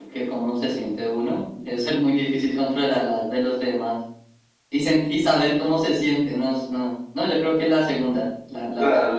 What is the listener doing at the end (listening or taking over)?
taking over